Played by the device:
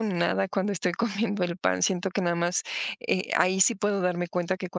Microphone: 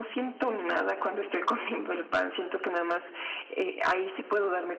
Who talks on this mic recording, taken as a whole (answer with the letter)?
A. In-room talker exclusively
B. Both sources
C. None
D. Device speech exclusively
D